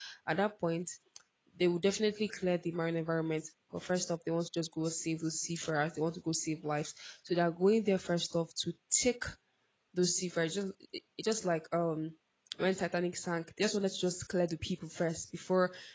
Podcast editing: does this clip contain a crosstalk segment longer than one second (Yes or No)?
No